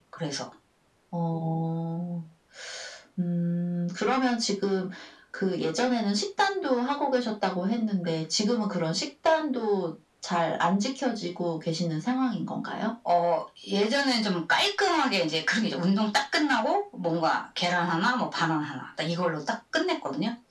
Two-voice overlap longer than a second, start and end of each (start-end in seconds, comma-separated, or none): none